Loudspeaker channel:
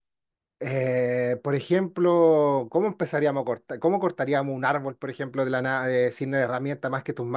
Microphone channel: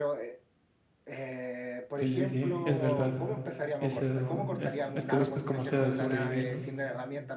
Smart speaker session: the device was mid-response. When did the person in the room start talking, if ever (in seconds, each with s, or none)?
1.9 s